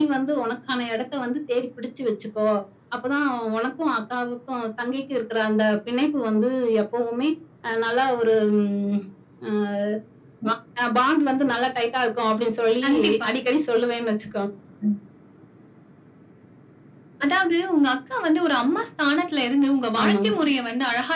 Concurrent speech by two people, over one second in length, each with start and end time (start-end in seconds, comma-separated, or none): none